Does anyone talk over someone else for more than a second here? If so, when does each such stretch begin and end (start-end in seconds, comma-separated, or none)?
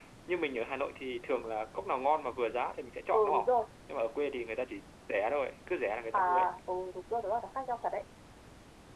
none